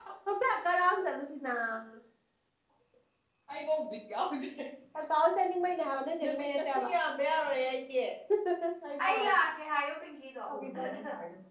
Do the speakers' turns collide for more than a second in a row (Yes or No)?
No